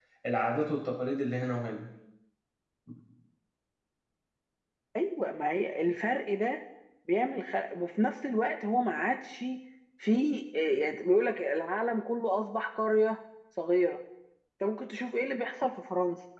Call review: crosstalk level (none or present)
none